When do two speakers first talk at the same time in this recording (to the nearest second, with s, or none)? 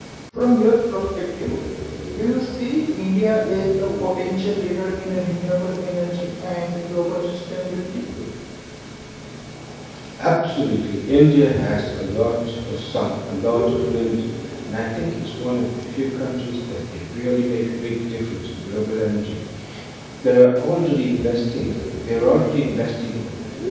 none